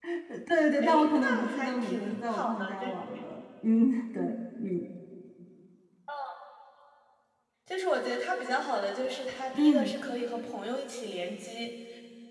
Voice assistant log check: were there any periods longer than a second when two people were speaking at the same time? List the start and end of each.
0.8-3.3

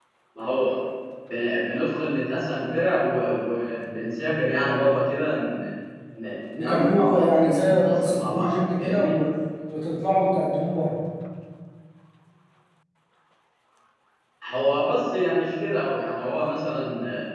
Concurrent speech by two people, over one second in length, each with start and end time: 6.6-9.2

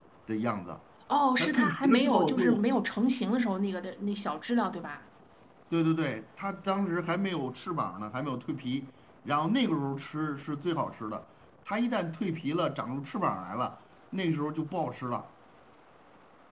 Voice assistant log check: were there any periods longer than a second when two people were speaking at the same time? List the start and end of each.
1.4-2.6

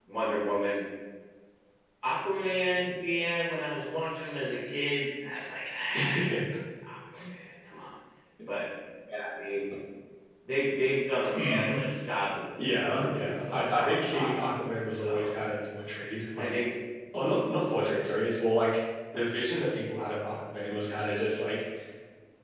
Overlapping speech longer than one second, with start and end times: 12.6-14.3

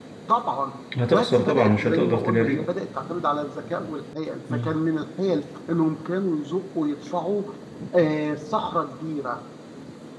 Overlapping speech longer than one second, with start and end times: 1.0-2.6

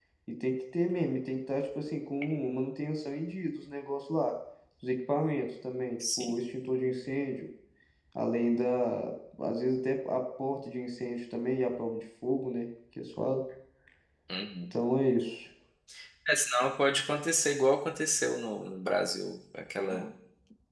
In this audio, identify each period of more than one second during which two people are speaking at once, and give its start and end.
none

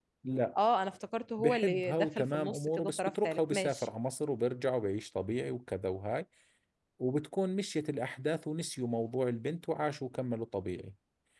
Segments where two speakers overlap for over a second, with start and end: 1.4-3.9

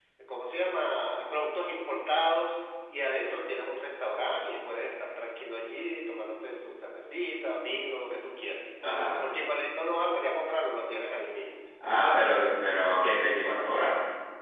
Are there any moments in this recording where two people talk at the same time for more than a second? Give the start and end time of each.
none

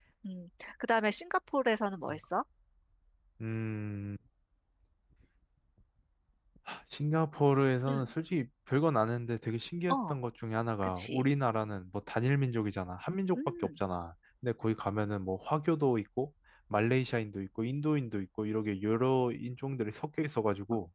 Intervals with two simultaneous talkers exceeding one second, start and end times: none

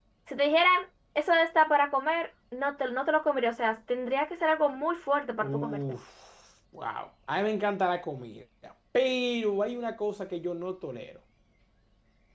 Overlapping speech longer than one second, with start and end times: none

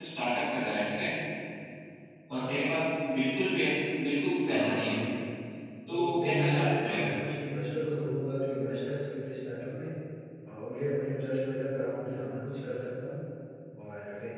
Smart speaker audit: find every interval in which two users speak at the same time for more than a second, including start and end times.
5.9-7.1

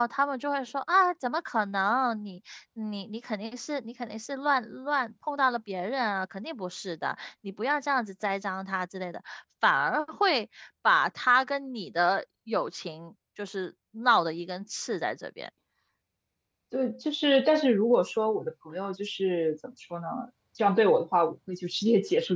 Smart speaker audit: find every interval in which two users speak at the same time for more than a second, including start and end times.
none

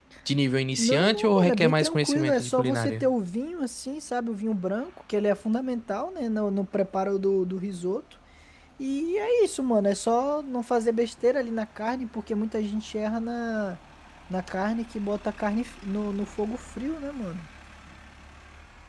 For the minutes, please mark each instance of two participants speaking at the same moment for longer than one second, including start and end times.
0.8-3.0

